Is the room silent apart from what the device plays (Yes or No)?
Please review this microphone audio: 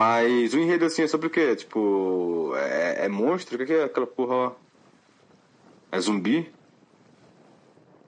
Yes